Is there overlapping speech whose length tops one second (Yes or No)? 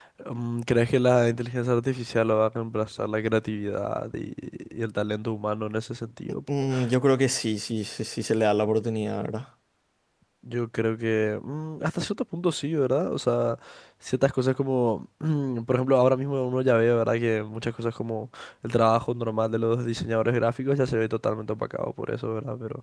No